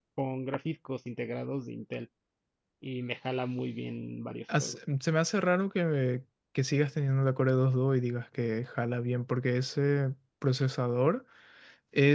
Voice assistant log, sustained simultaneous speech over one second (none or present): none